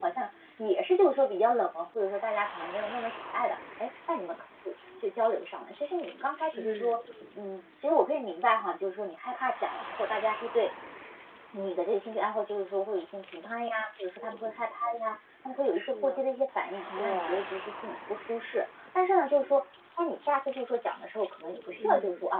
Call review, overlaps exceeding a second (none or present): none